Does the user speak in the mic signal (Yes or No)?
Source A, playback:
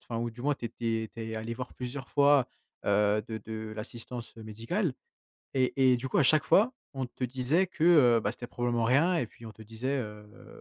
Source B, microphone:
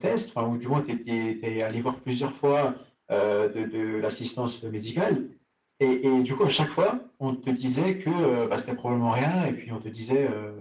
No